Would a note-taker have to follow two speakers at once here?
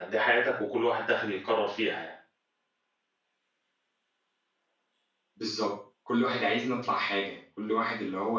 No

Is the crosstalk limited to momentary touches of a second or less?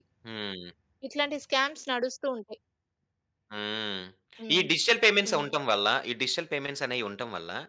Yes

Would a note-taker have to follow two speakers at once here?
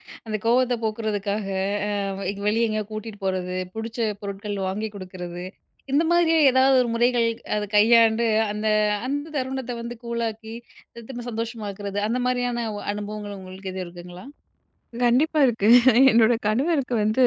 No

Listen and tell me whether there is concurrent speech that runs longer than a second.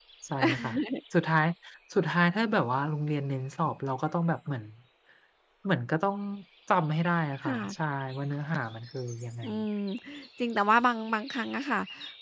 No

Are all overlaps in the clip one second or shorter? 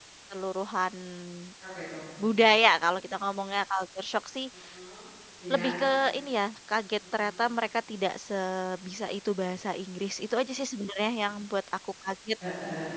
Yes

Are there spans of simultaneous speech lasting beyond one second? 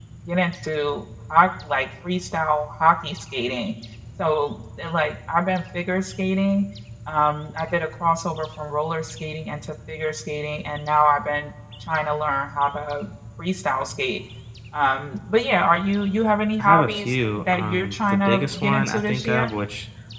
Yes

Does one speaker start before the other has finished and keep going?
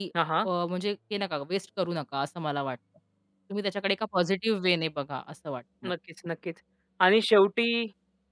No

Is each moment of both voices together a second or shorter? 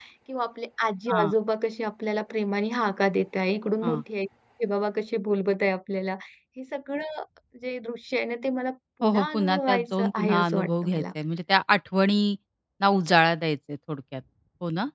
No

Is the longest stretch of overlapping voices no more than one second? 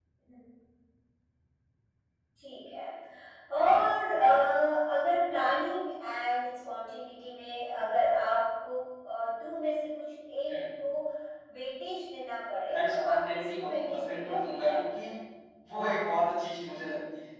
No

